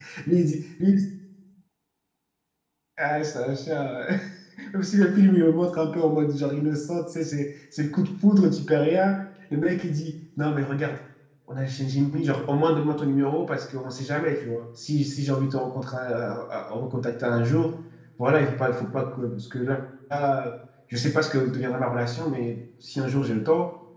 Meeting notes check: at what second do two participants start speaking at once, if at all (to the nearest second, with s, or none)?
none